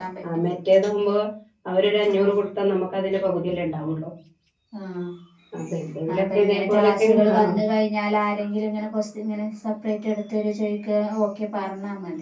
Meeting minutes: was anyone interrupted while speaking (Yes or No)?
Yes